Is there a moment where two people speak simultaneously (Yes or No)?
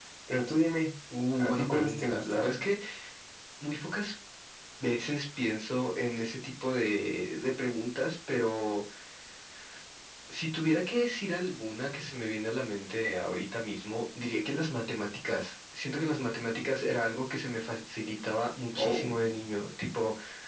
Yes